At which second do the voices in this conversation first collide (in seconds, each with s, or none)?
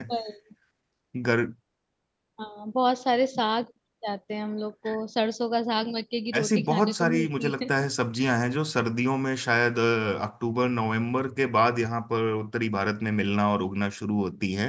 6.3 s